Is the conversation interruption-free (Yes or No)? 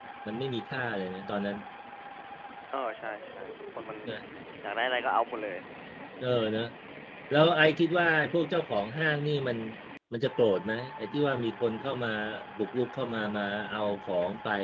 Yes